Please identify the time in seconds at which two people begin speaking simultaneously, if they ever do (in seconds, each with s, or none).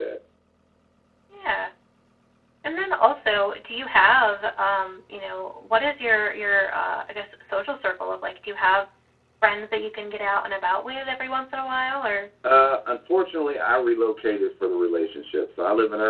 none